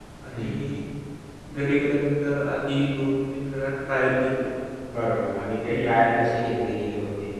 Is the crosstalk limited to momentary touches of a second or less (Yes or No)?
Yes